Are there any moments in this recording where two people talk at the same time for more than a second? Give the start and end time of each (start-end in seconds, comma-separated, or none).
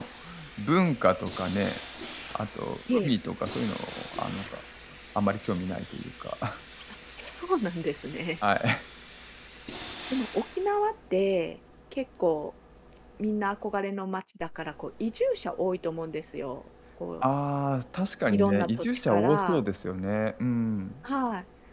18.3-19.6